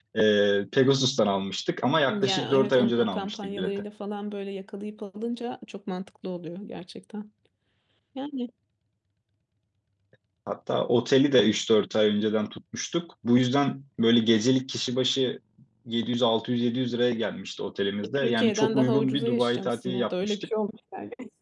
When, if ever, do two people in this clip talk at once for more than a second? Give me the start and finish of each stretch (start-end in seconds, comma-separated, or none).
2.1-3.8, 18.0-20.5